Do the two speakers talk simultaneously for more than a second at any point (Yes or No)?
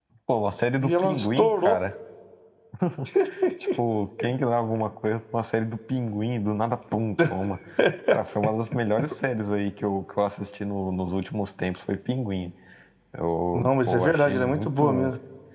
Yes